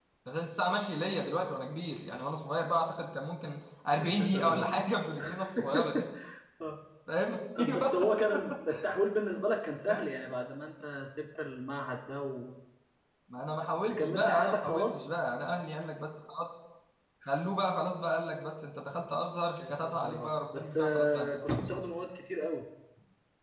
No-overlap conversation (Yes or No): No